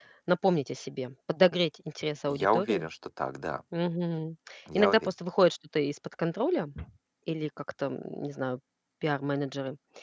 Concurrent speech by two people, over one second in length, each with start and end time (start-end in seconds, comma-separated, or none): none